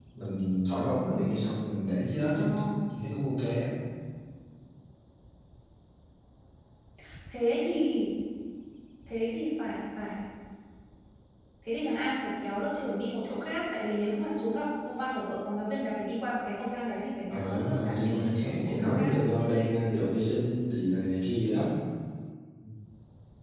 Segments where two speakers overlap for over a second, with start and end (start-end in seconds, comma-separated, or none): 17.3-19.1